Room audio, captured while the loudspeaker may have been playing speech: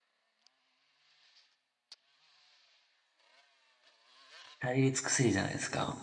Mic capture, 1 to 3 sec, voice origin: neither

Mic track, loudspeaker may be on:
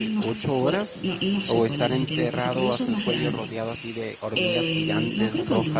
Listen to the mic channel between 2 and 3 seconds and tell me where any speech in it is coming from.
both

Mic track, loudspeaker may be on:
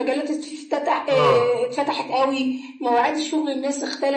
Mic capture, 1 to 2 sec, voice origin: both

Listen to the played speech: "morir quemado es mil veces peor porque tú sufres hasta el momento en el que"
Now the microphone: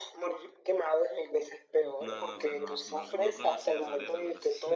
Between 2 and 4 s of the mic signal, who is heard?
both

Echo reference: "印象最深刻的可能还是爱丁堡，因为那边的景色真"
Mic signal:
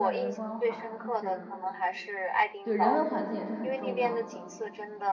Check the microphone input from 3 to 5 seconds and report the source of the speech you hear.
both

